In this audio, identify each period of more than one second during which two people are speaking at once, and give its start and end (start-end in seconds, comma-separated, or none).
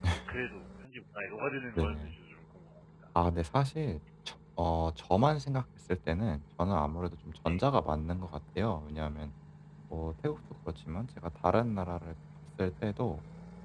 none